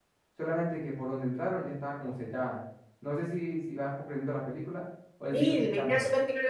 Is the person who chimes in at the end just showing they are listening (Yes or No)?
No